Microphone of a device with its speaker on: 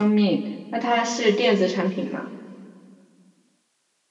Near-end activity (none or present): present